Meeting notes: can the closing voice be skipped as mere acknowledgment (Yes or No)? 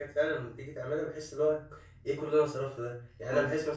Yes